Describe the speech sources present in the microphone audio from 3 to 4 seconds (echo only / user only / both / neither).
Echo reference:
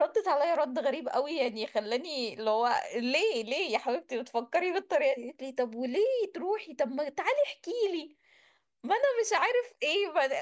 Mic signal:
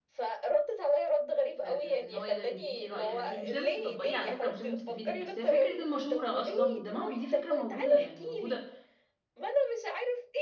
both